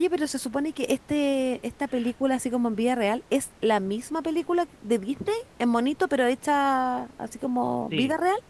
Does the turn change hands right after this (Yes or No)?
Yes